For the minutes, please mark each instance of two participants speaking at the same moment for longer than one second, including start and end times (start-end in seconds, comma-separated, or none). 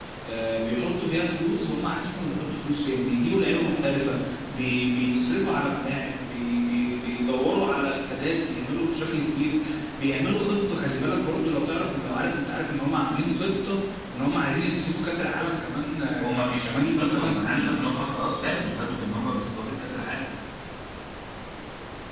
16.2-17.7